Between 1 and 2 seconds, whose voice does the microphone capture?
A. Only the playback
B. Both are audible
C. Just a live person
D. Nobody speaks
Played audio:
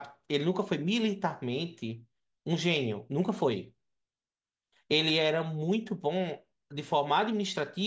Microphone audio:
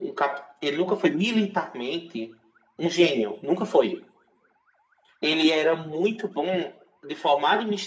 A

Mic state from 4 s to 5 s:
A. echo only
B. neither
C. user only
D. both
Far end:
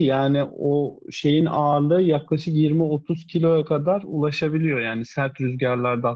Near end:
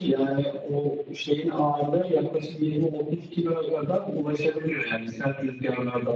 A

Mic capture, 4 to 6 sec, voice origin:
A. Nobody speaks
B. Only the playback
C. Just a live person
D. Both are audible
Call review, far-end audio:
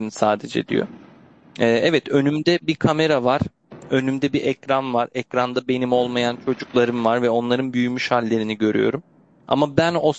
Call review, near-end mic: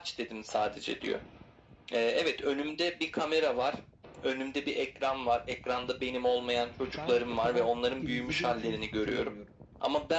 B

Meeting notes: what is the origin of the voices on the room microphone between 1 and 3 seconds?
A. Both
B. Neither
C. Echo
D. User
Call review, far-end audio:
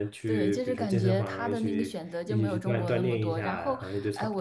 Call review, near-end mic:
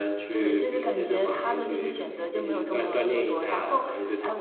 C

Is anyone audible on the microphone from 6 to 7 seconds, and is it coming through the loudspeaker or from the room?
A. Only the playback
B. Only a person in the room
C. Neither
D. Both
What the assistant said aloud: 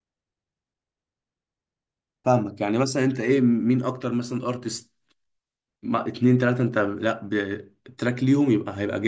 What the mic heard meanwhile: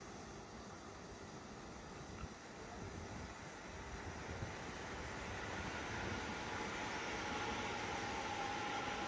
C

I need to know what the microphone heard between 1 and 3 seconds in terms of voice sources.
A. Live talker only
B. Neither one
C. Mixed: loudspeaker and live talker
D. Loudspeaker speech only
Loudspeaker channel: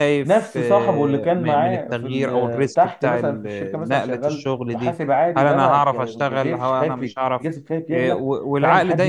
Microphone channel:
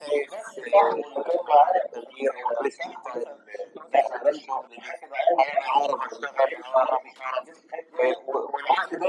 D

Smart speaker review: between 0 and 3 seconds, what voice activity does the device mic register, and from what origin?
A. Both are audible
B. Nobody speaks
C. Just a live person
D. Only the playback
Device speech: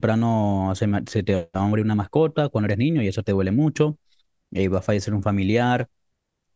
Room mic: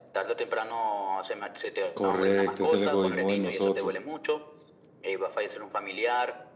A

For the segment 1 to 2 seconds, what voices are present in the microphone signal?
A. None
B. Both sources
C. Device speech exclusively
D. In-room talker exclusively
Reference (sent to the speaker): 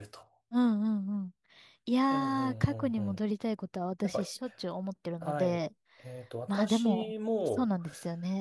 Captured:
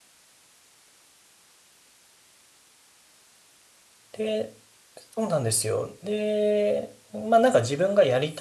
A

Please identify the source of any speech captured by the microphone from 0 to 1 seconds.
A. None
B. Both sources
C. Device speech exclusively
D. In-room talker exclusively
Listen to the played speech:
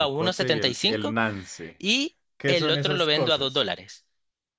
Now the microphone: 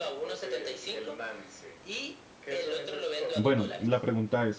C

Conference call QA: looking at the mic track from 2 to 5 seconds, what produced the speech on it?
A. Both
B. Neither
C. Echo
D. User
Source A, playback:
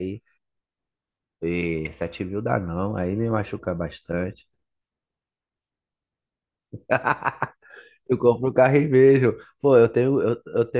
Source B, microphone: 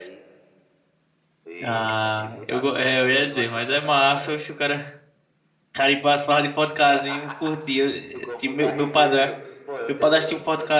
A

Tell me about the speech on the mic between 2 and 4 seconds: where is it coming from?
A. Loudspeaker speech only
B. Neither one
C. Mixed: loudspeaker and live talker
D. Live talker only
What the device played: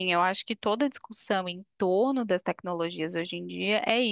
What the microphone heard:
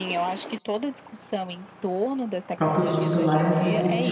C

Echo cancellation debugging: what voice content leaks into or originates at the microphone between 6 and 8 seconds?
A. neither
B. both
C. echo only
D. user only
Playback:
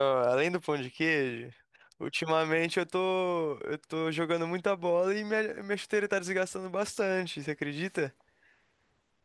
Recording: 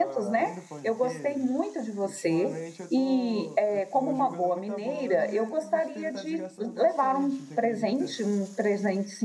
B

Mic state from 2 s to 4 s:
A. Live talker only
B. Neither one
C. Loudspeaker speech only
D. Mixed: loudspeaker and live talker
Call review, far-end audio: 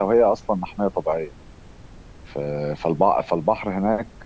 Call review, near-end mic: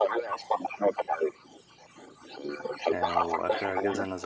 D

